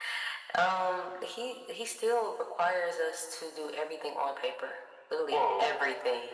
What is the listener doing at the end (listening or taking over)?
taking over